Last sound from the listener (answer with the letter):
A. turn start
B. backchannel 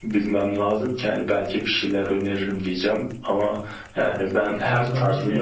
A